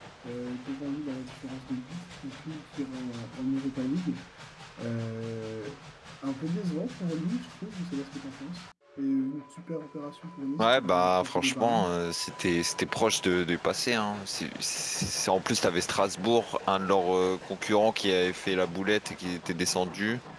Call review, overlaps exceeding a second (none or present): present